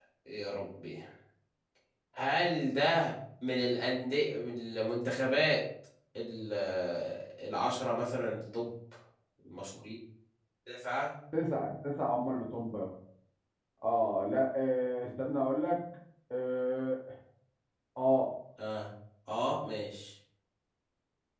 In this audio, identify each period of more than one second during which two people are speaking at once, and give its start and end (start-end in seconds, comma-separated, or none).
none